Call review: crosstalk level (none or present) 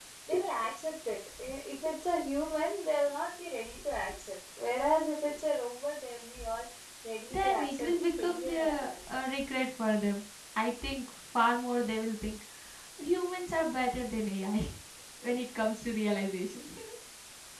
present